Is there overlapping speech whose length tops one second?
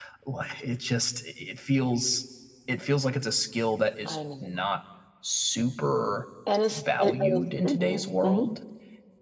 Yes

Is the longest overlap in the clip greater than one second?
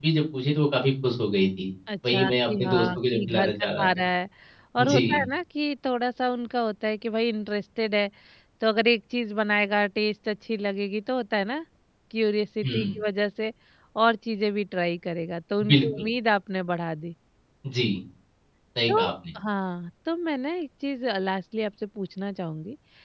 Yes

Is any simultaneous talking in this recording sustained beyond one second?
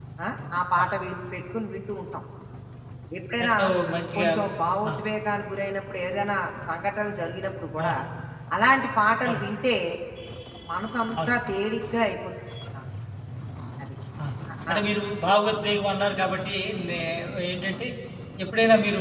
No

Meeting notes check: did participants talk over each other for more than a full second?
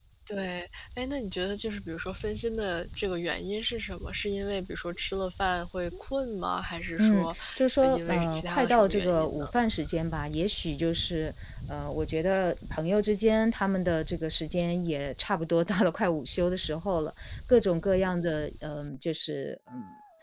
Yes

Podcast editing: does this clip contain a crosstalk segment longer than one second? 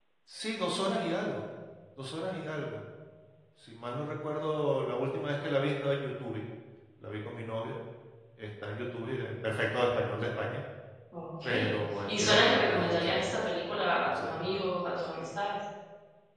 Yes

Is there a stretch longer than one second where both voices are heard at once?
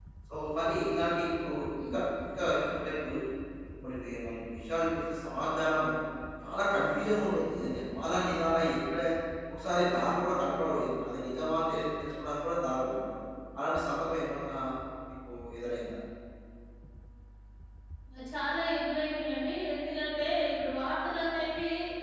No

